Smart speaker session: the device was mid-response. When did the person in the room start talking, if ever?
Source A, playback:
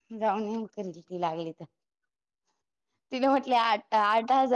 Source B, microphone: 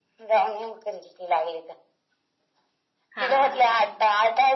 3.2 s

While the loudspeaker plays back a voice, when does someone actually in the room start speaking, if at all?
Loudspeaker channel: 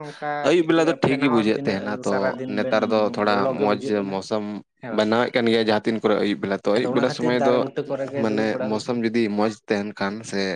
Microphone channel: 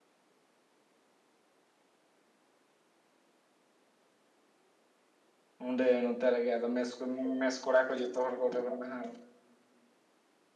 5.7 s

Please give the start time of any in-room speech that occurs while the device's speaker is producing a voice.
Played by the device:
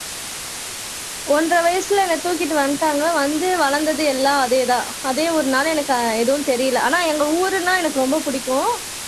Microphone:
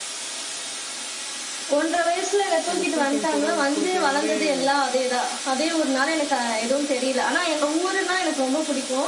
2.7 s

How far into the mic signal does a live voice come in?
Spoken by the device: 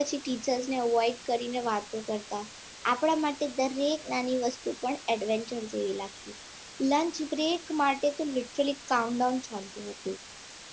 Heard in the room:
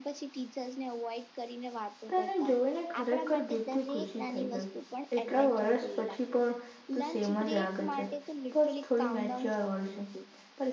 2.1 s

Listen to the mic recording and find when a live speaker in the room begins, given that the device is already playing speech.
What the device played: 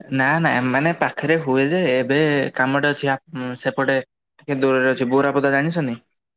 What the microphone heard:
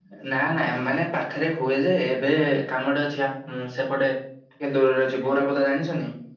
none

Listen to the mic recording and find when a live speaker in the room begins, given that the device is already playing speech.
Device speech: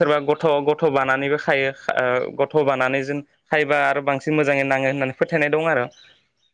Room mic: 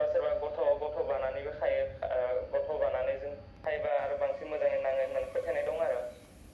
none

